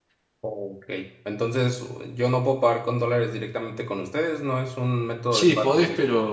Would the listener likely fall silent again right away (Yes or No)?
No